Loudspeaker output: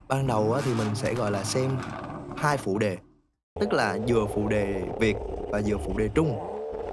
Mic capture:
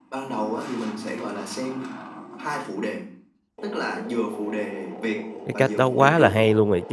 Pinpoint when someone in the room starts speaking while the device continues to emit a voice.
5.5 s

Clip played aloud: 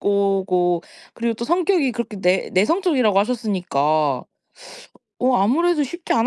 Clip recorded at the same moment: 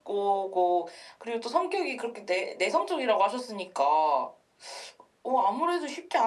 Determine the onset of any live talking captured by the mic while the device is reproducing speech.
none

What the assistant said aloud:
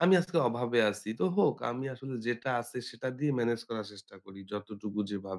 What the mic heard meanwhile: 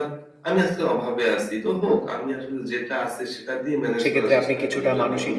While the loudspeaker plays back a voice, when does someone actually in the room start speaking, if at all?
4.0 s

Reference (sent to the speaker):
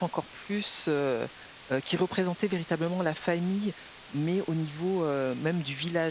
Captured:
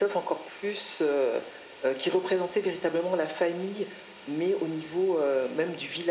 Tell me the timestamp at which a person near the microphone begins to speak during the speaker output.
none

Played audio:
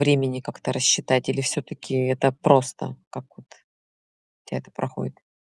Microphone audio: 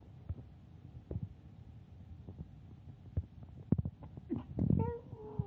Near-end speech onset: none

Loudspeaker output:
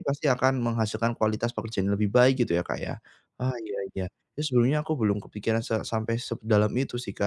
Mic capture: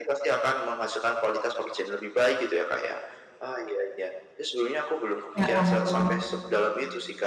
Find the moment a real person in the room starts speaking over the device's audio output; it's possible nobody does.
5.4 s

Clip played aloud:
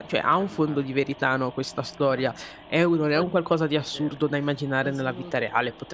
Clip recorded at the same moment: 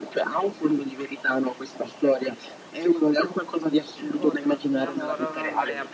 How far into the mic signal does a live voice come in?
3.9 s

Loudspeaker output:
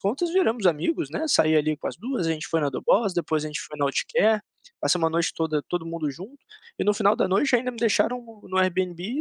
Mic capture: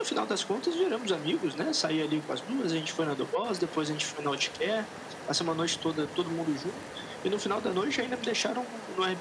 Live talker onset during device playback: none

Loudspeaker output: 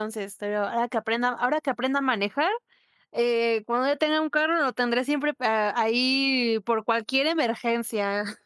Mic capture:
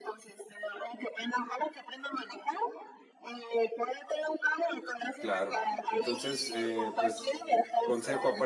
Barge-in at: 5.2 s

